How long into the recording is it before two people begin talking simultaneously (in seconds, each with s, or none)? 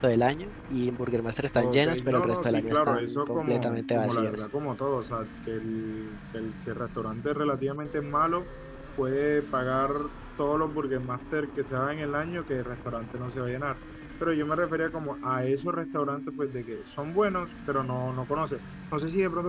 1.6 s